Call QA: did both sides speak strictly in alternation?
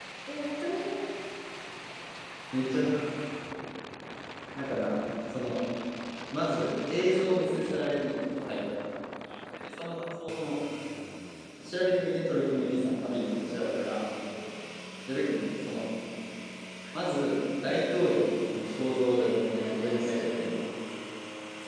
No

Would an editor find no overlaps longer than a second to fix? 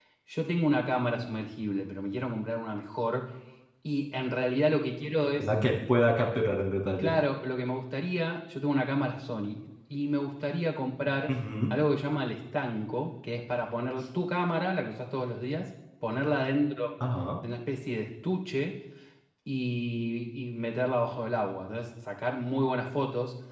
Yes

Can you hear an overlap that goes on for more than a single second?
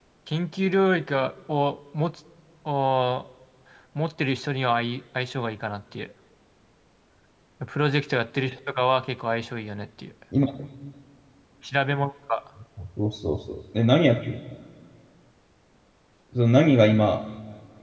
No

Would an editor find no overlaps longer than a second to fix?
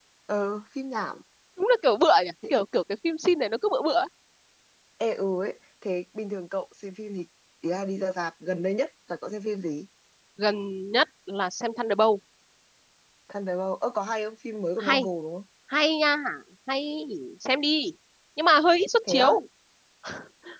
Yes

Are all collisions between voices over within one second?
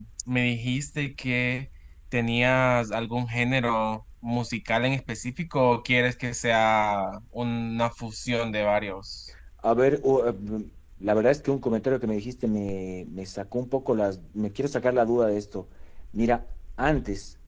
Yes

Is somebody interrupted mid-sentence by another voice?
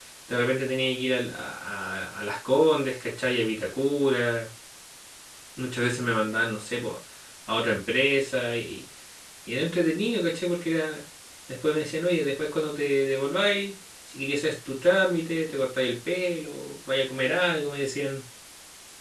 No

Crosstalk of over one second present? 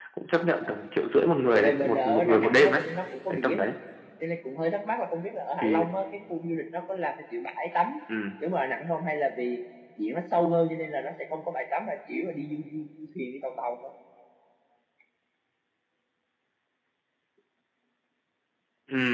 Yes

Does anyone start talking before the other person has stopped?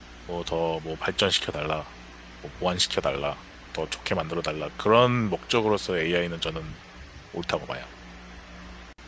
No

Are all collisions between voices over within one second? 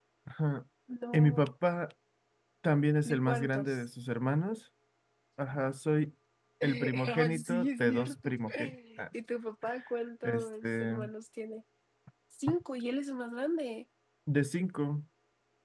No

